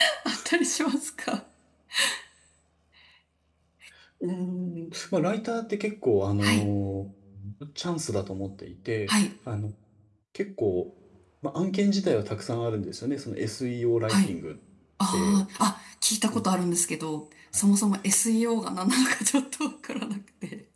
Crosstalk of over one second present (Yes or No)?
No